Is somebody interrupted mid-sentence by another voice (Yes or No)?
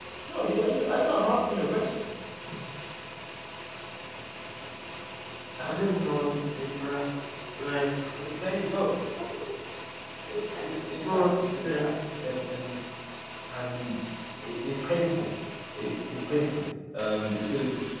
Yes